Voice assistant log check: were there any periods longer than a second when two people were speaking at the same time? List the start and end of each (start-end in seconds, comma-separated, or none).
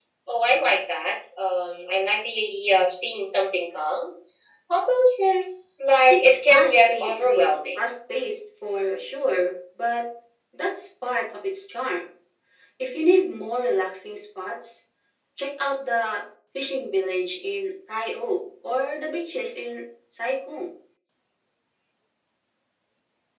6.1-7.8